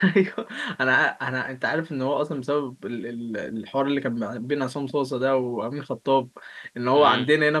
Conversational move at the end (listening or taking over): listening